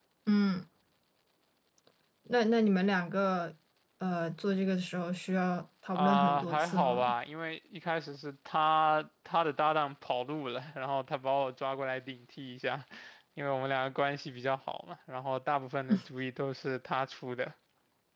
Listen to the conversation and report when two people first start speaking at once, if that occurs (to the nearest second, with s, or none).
6 s